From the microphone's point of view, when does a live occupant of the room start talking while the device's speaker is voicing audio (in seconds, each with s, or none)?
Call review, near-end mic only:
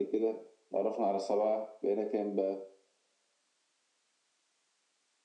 none